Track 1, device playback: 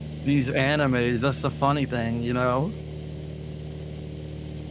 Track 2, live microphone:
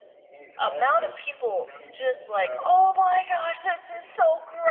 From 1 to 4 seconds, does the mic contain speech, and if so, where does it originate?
both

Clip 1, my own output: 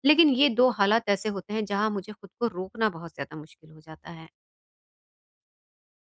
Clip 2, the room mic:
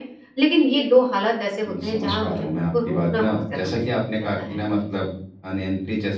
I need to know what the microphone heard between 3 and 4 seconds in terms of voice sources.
both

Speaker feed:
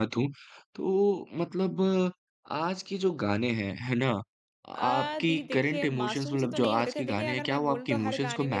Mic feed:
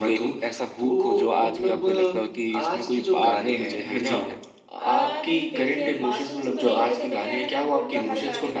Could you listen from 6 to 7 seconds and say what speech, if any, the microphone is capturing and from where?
echo only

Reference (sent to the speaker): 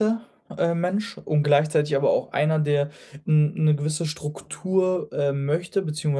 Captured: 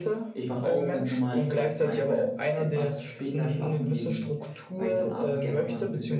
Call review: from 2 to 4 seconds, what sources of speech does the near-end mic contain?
both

